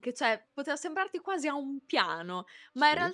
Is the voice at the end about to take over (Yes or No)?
No